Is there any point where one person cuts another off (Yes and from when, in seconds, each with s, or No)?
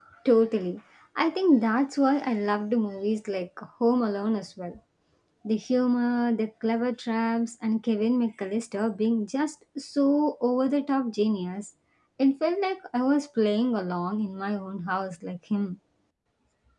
No